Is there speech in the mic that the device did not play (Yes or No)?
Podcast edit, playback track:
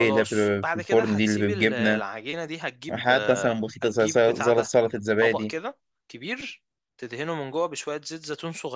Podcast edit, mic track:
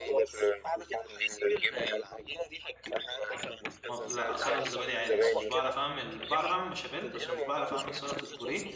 Yes